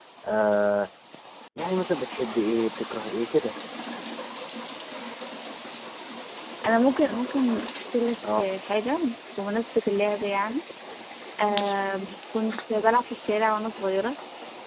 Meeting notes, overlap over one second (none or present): none